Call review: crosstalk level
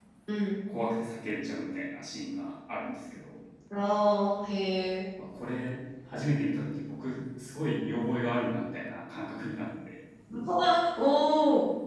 none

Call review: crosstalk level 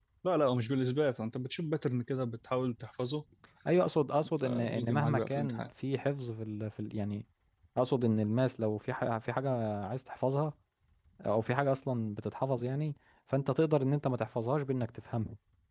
present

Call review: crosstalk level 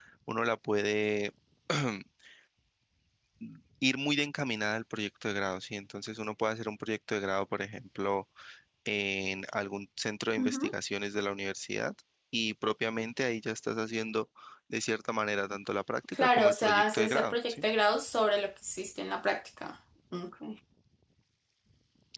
present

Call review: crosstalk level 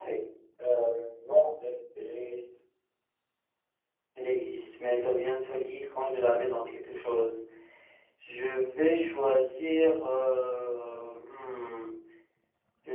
none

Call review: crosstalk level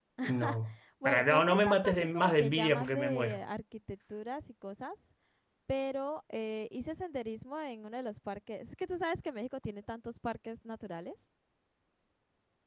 present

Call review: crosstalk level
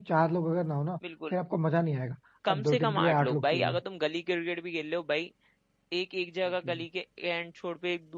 present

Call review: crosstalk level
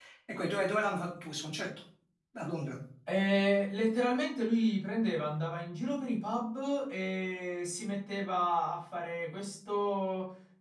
none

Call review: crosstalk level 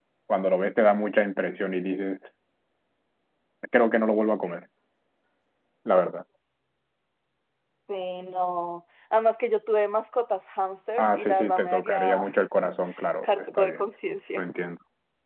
present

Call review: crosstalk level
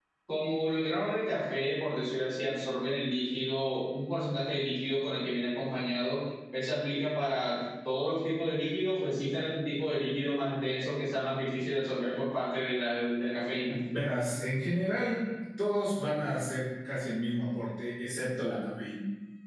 none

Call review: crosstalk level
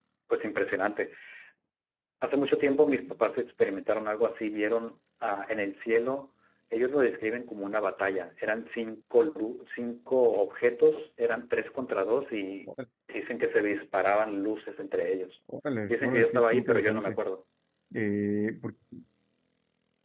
present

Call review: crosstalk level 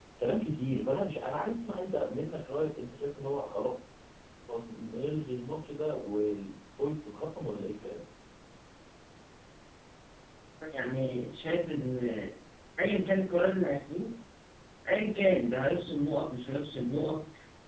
none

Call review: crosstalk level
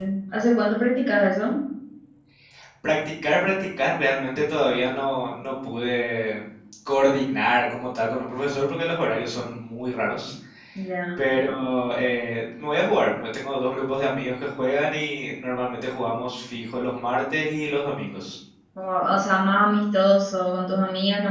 none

